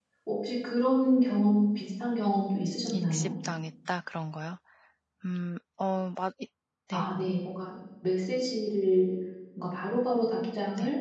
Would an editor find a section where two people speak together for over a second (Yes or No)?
No